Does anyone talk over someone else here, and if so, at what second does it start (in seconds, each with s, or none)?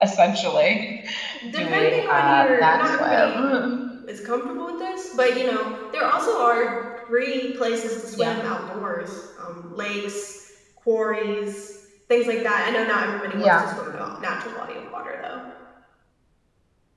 1.5 s